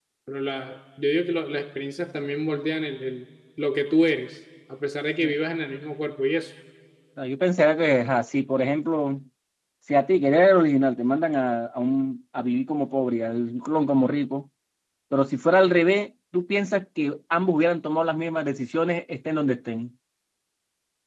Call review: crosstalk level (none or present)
none